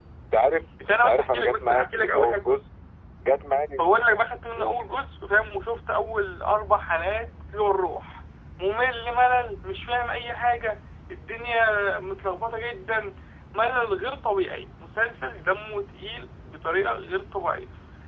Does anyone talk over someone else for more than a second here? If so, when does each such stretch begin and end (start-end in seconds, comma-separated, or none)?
0.9-2.5